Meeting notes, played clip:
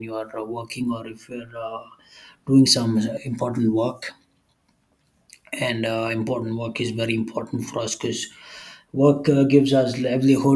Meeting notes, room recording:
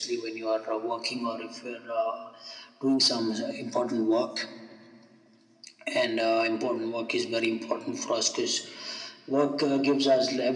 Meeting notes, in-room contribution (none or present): none